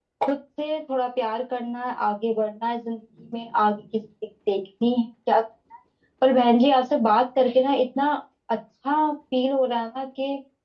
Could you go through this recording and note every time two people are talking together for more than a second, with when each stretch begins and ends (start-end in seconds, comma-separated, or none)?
none